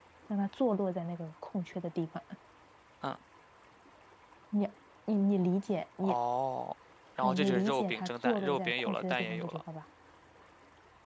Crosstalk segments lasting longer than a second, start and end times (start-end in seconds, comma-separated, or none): 7.2-9.6